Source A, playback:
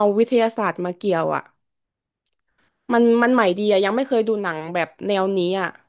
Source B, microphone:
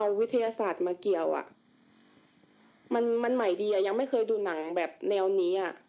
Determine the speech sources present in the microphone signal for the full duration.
echo only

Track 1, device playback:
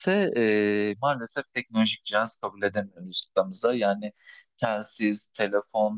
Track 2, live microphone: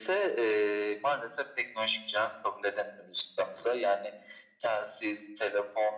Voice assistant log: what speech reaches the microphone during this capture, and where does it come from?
echo only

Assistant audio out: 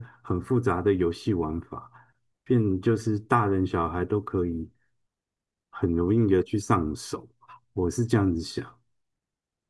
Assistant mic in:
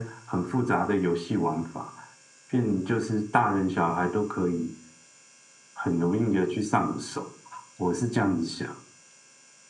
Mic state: echo only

